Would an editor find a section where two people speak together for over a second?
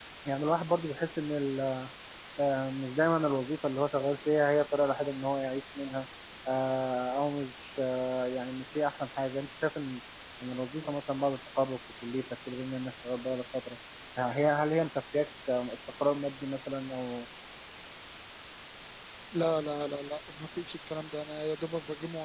No

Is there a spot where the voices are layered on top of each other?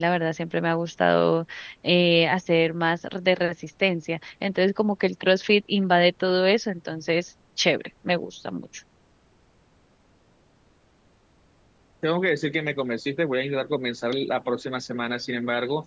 No

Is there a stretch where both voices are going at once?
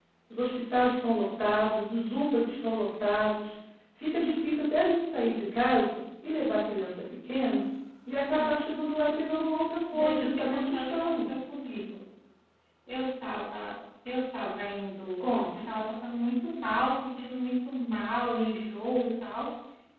Yes, from 9.9 s

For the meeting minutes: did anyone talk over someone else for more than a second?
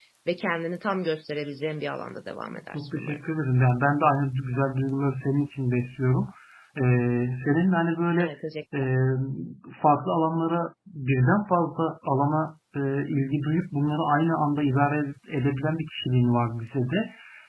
No

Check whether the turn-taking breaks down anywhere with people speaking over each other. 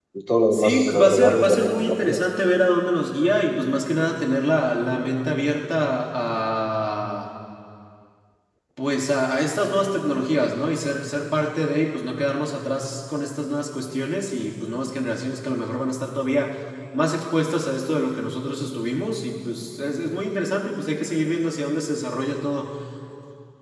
Yes, from 0.5 s

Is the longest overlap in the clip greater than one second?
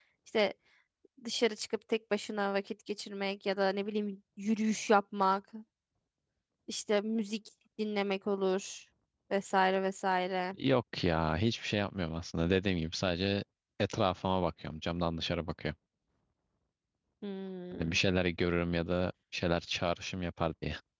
No

